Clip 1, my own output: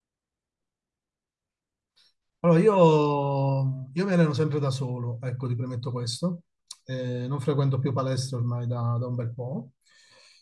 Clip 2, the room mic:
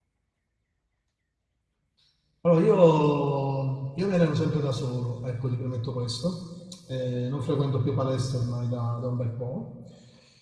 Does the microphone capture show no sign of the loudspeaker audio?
No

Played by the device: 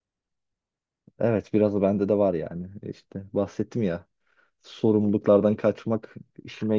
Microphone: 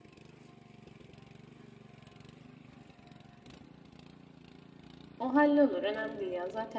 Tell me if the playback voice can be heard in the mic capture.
No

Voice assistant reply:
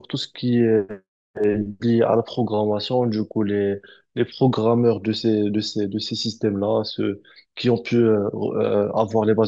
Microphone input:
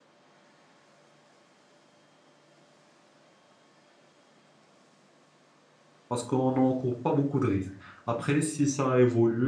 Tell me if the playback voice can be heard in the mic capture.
No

